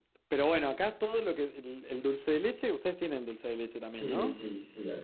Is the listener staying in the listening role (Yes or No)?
No